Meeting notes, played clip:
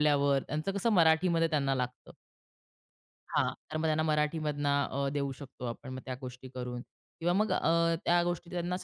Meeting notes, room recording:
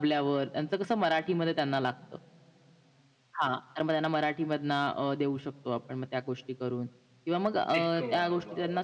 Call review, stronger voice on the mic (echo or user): echo